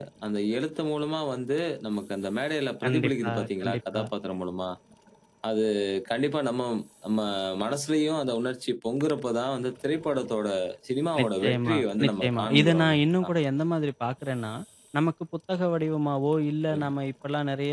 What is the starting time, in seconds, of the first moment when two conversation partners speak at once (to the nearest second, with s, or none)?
3 s